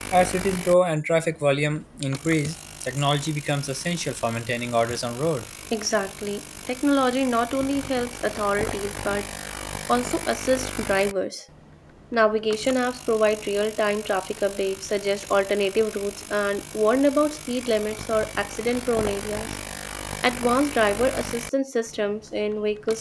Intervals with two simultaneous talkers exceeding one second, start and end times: none

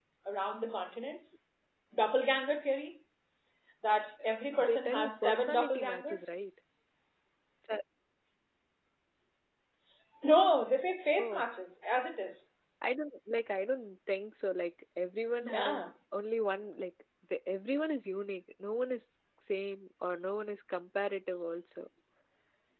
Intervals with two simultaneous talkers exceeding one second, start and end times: 4.6-6.4

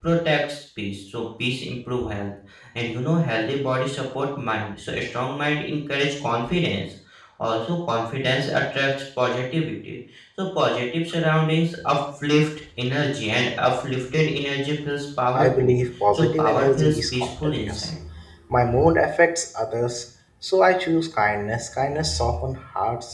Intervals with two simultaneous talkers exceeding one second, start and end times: 16.1-17.9

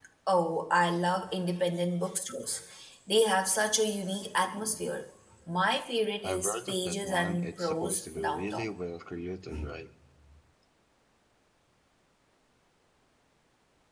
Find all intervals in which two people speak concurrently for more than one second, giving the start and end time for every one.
6.2-8.7

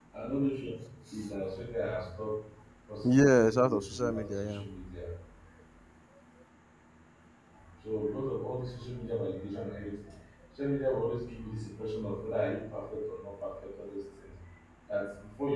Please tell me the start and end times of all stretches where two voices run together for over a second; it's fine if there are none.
3.0-4.6

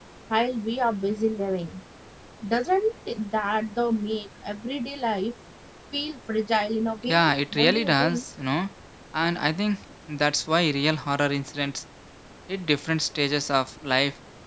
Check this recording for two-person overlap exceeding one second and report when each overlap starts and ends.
7.0-8.2

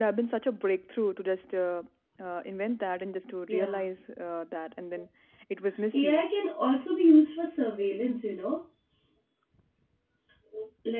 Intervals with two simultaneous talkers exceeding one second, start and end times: none

